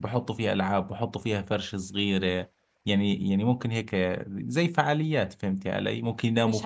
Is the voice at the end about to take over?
Yes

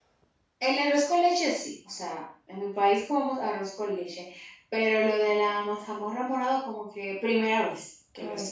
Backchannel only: No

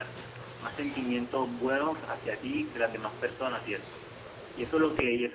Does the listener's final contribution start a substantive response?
No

